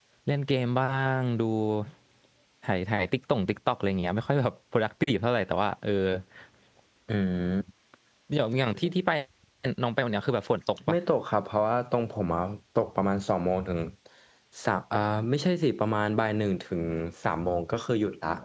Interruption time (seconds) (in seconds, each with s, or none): none